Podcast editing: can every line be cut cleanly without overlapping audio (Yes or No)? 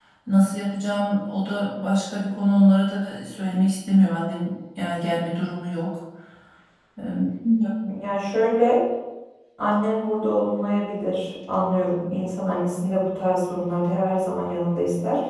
Yes